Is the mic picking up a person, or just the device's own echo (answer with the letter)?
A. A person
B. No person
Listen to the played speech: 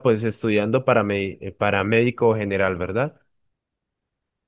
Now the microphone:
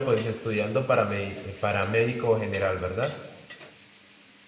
B